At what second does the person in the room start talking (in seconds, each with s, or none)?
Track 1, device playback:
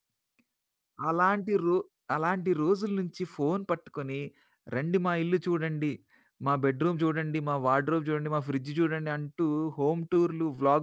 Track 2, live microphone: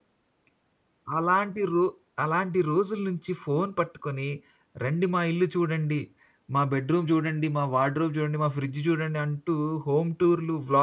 none